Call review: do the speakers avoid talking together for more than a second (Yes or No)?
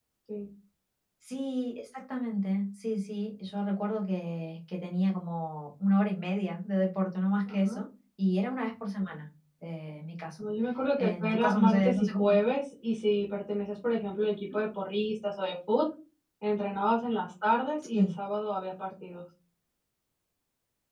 No